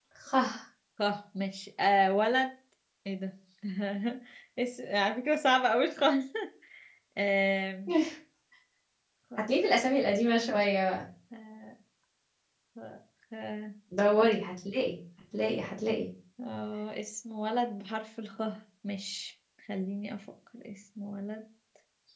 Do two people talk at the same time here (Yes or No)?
No